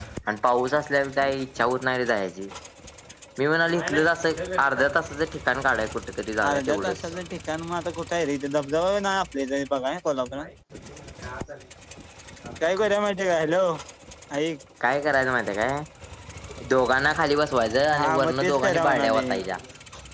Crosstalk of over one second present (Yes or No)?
Yes